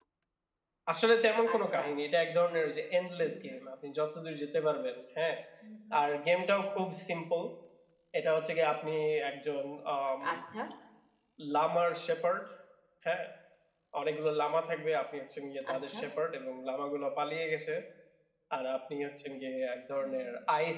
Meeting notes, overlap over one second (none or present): none